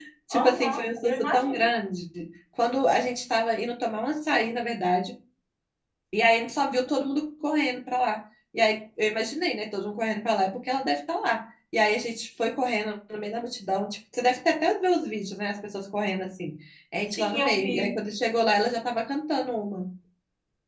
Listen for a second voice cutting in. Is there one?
Yes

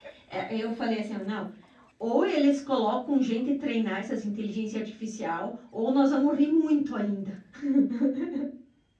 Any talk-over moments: No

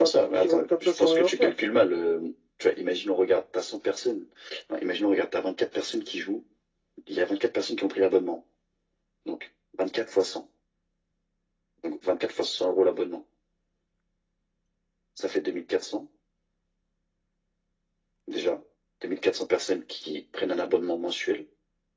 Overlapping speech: Yes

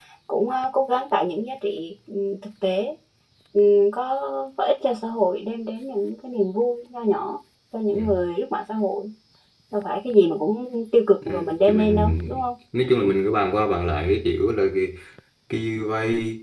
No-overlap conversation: No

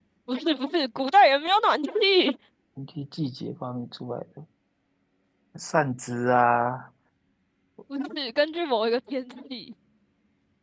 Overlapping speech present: No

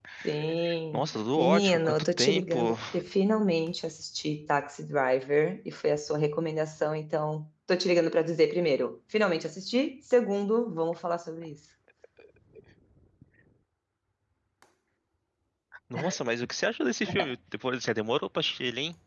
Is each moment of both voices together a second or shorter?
No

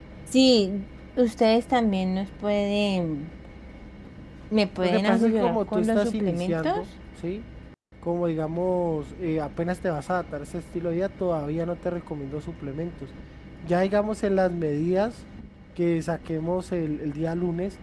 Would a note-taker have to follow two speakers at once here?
Yes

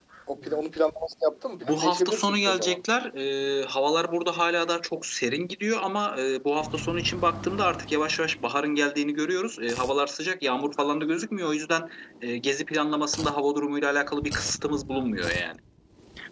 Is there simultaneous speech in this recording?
Yes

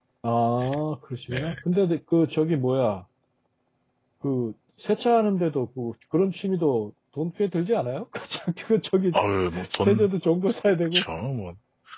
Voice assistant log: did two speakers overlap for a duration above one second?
No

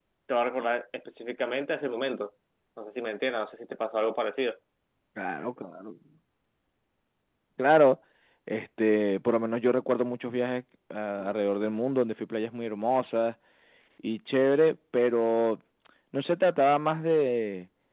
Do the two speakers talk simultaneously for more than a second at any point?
No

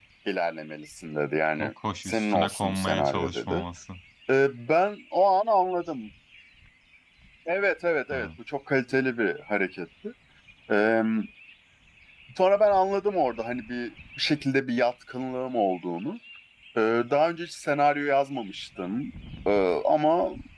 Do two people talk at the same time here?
Yes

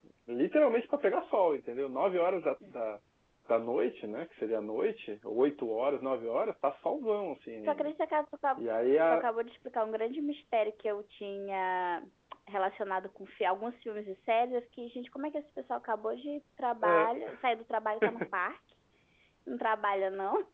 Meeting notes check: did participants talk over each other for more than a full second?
No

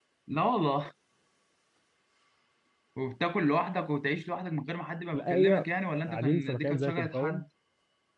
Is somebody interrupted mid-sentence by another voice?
Yes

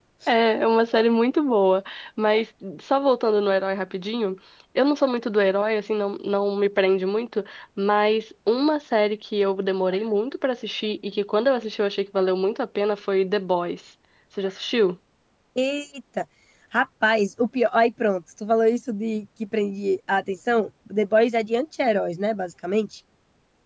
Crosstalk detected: No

